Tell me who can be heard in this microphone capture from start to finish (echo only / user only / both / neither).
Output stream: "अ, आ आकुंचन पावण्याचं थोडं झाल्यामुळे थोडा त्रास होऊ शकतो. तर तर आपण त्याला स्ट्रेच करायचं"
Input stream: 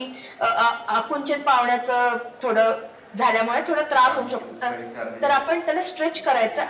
both